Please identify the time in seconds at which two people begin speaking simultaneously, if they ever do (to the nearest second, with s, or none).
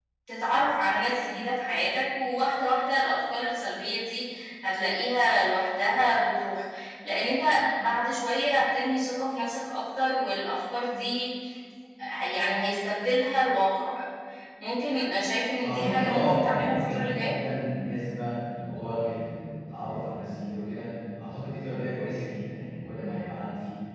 16 s